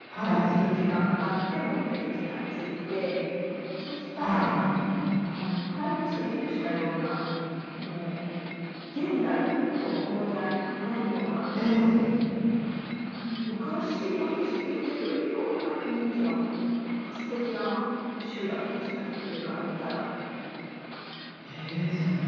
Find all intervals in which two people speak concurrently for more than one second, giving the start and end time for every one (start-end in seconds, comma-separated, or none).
none